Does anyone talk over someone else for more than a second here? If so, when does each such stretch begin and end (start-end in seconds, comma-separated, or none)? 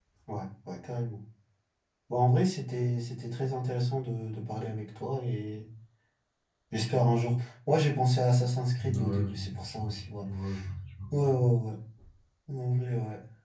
8.8-10.1